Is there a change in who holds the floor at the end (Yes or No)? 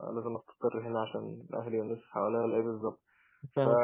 No